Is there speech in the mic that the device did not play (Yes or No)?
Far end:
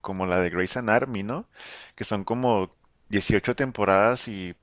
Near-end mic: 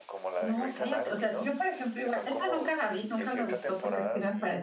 Yes